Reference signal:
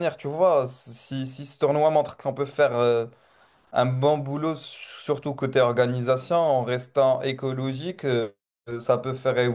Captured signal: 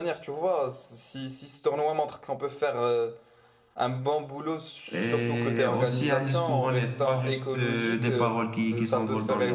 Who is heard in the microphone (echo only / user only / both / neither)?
both